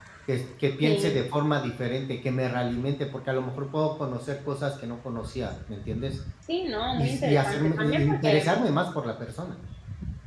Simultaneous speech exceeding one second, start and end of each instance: 6.9-8.4

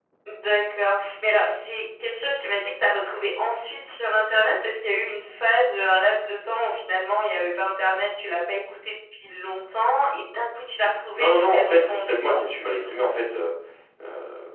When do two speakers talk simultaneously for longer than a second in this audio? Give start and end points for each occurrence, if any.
11.2-12.4

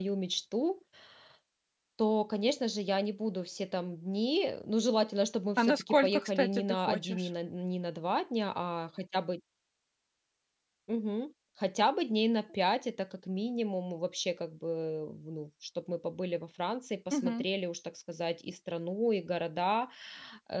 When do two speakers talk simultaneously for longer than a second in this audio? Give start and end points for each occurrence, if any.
5.6-7.3

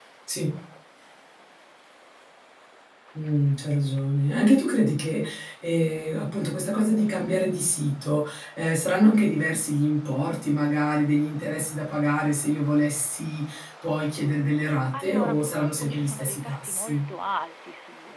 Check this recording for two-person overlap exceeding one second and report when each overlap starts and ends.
14.9-17.0

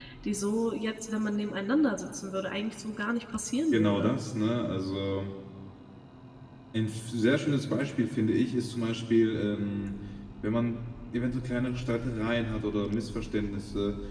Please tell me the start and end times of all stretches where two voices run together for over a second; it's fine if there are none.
none

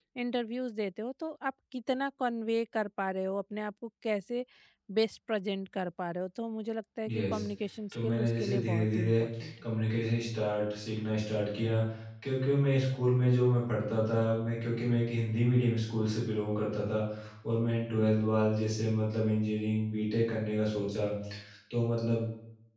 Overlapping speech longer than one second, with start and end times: 7.9-9.2

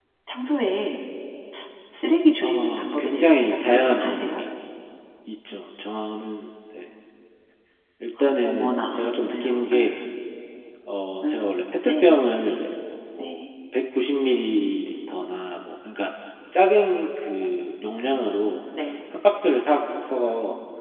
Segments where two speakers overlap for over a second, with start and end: 2.4-4.4, 8.4-10.0

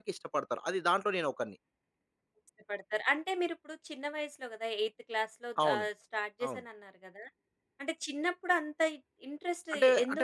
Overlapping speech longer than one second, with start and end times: none

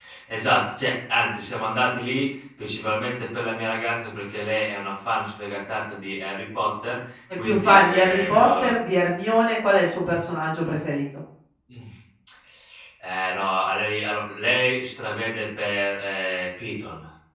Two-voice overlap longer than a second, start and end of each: 7.4-8.7

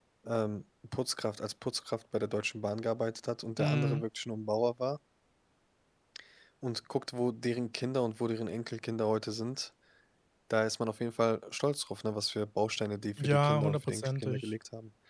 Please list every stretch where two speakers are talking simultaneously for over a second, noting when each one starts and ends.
13.2-14.5

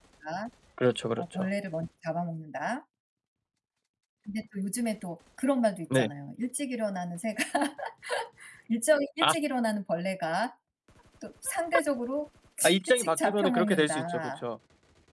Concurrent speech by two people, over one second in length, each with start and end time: 12.9-14.4

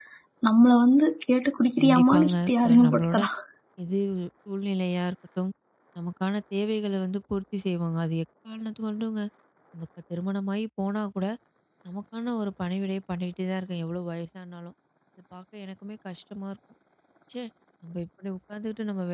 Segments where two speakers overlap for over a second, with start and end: 1.8-3.2

